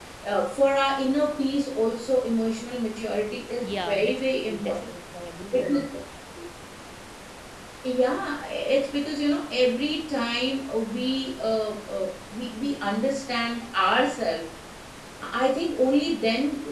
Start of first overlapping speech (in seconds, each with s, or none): 3.6 s